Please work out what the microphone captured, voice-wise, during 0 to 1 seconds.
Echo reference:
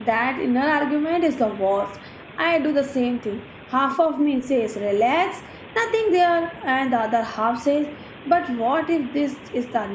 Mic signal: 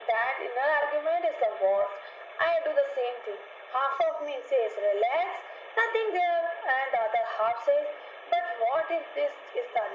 echo only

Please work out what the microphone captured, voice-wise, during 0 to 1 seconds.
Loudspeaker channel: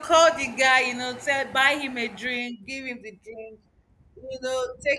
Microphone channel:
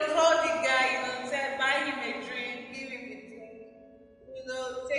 echo only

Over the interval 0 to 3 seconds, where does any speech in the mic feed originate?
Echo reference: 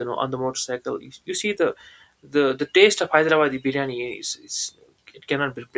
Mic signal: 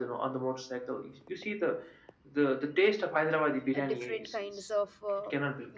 echo only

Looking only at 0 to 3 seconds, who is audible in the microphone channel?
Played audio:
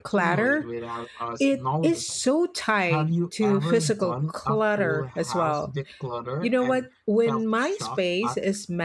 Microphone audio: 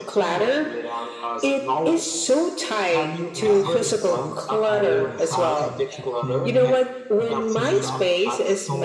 echo only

